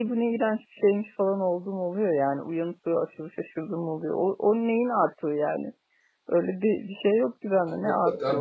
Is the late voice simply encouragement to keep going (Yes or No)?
No